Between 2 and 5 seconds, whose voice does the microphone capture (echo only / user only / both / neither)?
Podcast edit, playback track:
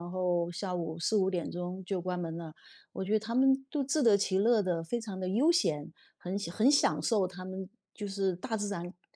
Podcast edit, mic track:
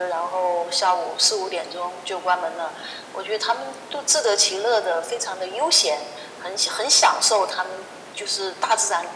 echo only